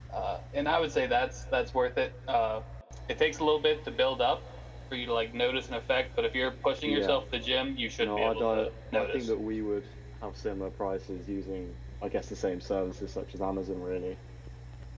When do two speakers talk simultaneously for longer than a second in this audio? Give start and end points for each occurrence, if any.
8.0-9.3

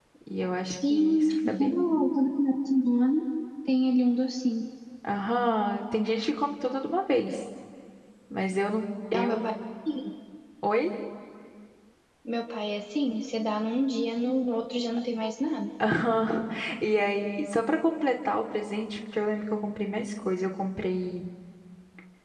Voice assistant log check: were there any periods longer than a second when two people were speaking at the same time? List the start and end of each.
0.7-1.9

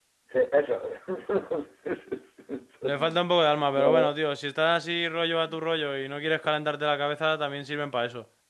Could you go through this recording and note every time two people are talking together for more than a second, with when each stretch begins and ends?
none

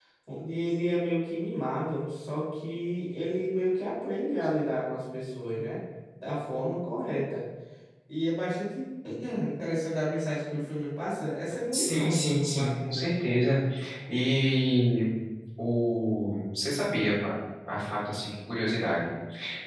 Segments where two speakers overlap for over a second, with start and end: 11.7-13.0

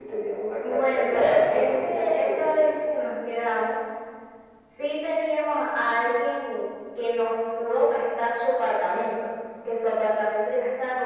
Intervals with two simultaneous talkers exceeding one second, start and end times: 0.6-2.6

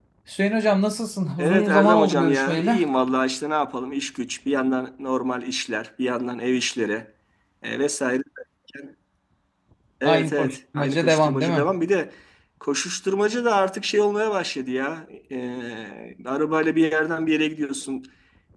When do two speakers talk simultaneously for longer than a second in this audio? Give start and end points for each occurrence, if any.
1.4-2.8, 10.1-11.7

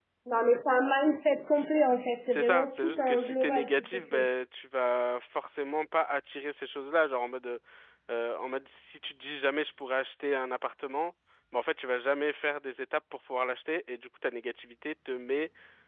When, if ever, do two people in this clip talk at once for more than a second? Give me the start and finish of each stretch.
2.3-4.3

